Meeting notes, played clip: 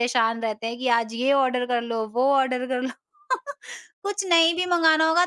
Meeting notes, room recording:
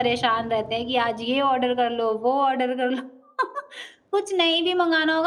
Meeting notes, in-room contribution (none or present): none